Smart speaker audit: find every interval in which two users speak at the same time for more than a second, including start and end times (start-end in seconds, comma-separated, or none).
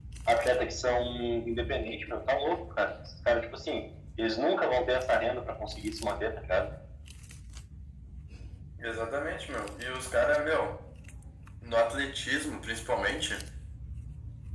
none